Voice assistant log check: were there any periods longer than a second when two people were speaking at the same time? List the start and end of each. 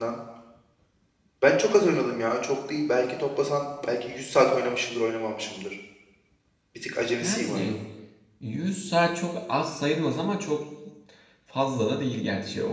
none

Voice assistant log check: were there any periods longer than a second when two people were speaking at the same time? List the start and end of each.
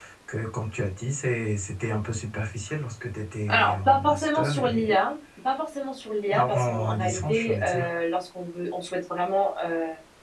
3.5-4.9, 6.3-7.9

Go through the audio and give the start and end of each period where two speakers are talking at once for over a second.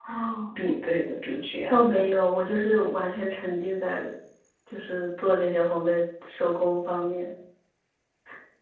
none

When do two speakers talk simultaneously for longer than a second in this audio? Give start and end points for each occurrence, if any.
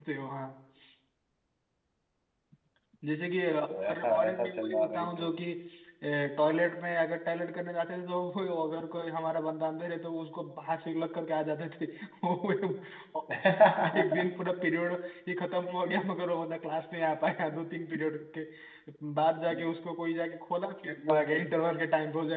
3.9-5.3

